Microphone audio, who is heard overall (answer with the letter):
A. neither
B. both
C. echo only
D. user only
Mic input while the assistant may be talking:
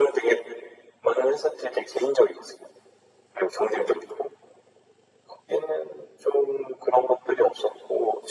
C